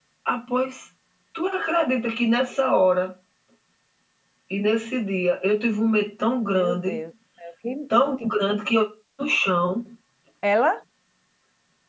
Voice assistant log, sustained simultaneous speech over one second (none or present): none